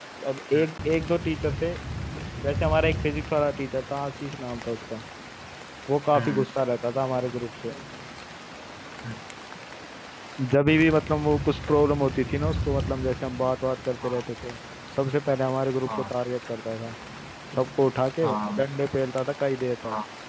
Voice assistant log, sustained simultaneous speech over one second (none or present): none